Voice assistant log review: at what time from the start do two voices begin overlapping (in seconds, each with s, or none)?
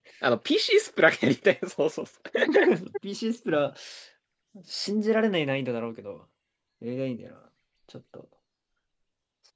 none